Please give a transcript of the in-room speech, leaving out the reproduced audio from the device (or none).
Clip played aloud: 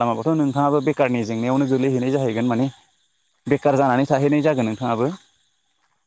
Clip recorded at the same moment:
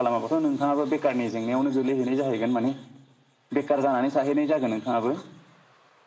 none